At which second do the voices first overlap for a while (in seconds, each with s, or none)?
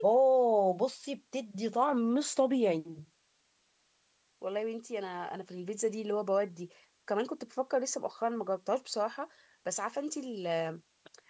none